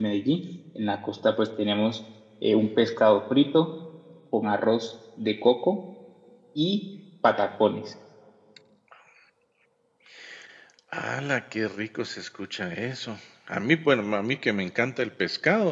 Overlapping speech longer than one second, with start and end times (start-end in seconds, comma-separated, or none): none